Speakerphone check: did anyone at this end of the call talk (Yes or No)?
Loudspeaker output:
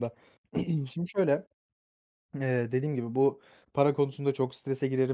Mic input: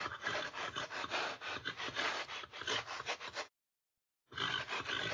No